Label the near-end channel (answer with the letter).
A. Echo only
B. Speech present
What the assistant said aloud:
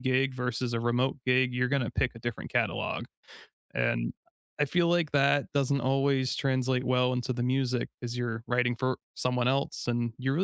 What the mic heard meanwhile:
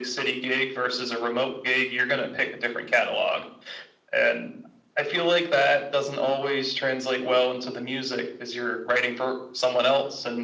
A